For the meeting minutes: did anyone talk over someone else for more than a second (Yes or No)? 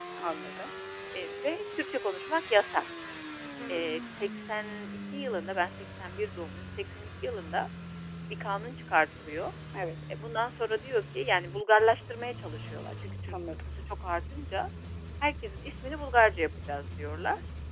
No